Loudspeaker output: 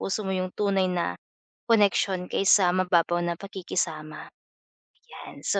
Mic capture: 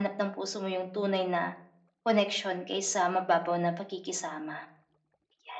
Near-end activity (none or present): none